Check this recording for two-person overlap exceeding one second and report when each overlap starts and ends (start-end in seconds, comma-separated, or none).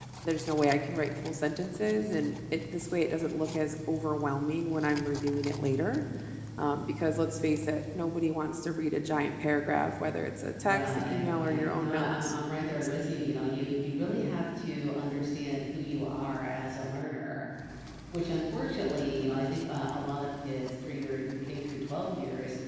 10.6-12.3